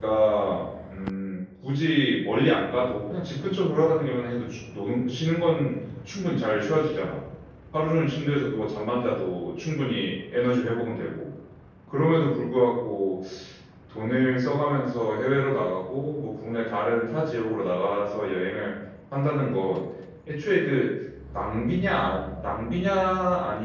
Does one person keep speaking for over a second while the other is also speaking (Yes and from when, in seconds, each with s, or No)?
No